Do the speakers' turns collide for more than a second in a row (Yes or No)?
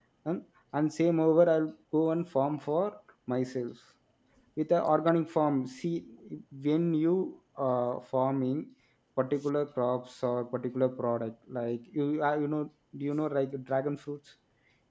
No